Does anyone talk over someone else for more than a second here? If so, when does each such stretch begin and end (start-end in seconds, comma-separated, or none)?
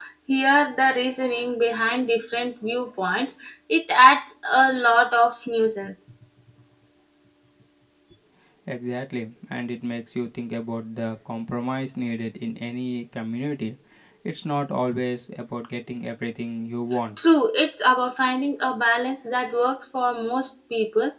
none